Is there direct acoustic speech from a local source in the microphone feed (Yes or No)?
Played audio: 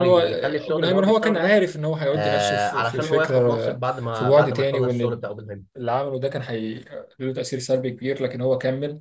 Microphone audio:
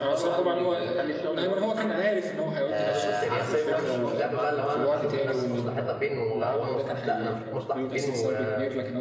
Yes